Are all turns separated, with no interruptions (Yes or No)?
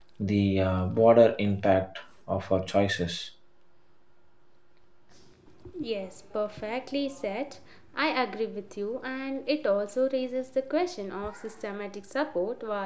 Yes